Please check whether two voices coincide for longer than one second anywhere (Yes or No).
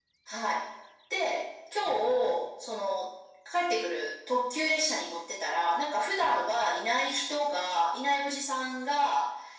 No